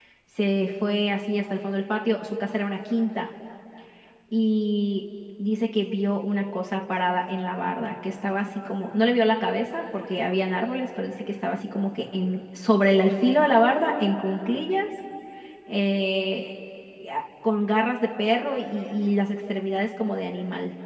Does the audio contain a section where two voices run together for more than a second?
No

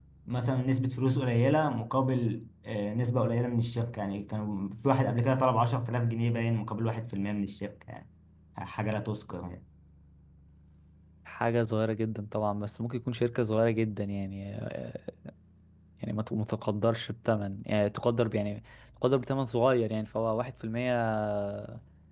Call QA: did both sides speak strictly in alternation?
Yes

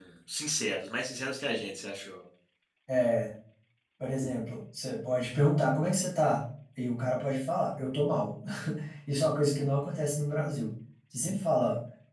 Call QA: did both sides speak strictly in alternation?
Yes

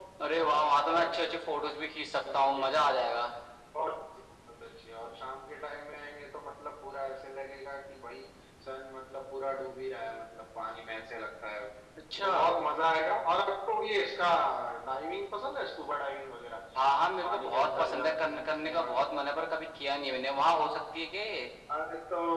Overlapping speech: Yes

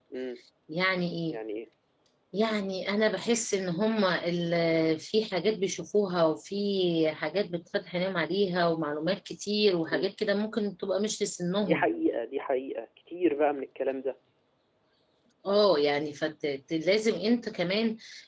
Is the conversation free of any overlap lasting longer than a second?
Yes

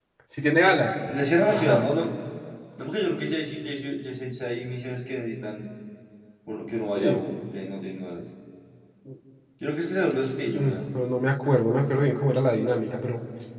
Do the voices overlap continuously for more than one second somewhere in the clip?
No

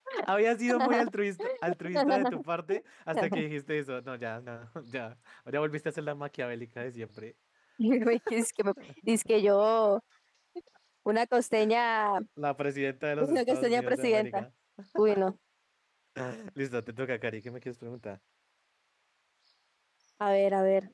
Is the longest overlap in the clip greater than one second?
Yes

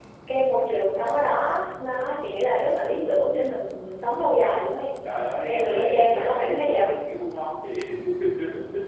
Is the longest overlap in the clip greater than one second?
Yes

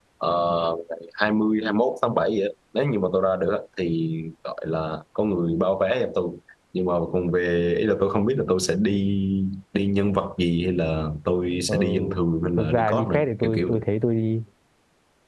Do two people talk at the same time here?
Yes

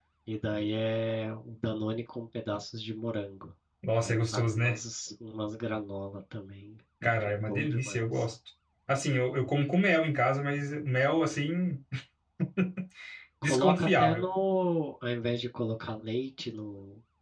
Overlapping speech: Yes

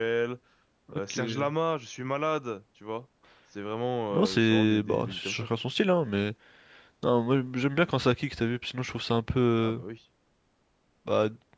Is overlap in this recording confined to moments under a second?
No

